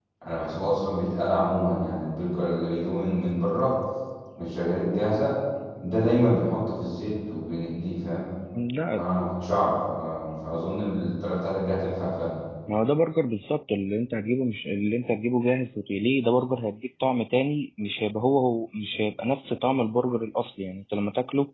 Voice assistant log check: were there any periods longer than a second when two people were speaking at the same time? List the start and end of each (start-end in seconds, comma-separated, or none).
none